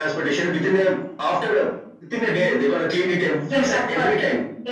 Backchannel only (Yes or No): No